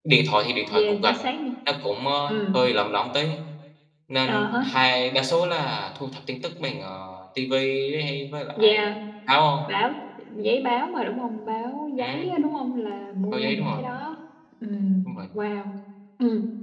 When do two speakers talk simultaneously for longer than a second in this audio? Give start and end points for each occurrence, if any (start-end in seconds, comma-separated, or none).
none